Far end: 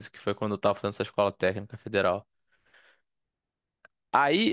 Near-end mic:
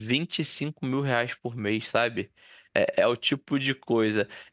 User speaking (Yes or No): Yes